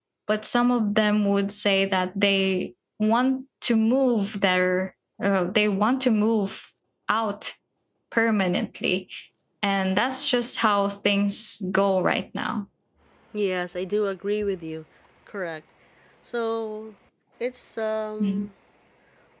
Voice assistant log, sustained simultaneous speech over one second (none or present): none